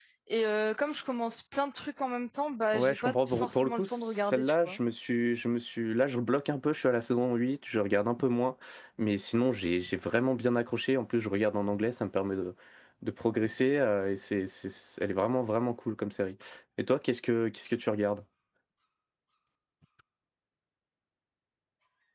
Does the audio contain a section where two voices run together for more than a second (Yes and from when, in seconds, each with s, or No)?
Yes, from 2.7 s